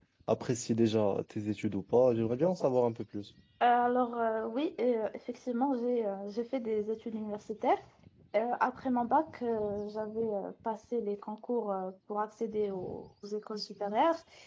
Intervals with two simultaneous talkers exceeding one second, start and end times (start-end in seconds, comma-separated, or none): none